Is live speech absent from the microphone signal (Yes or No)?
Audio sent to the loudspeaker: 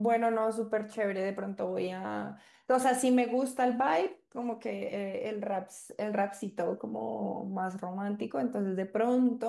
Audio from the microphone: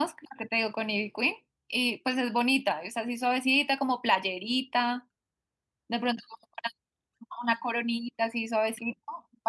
No